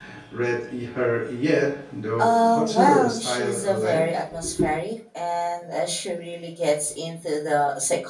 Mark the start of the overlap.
2 s

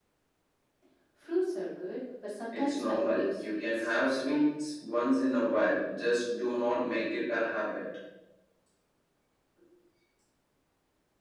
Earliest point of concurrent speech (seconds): 3 s

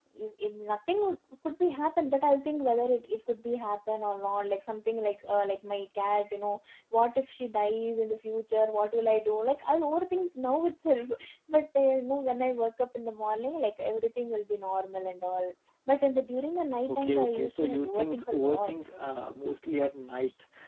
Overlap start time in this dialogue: 17 s

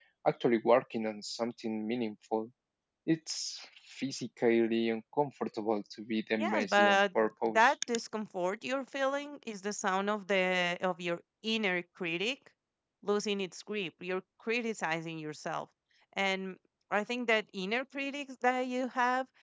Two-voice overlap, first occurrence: 6 s

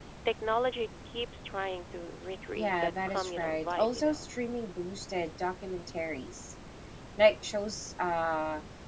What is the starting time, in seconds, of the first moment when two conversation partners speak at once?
3 s

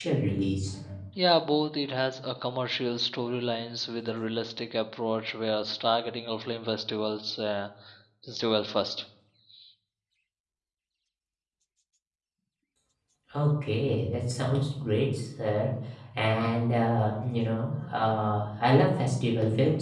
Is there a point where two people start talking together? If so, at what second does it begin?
none

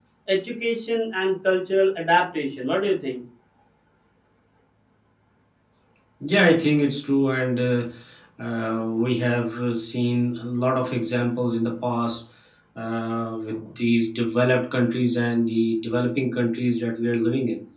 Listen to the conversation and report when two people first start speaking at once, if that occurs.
none

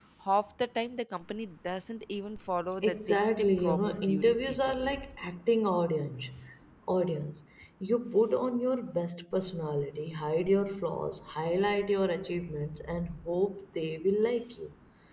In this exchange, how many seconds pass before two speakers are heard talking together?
3 s

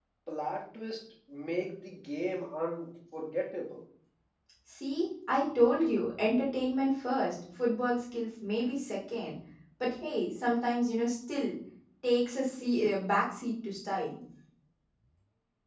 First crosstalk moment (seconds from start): none

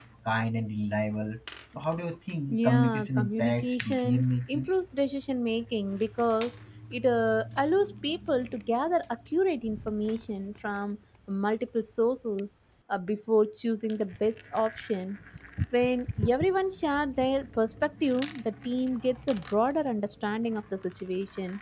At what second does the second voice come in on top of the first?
2 s

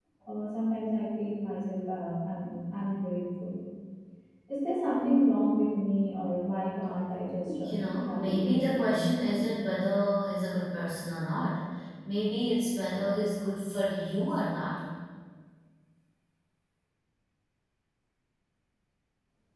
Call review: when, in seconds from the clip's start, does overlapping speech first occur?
8 s

